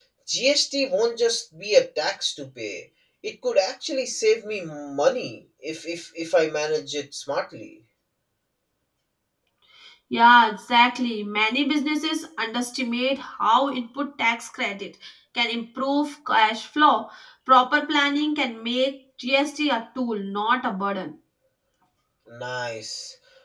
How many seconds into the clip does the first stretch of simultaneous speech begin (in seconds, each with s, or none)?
none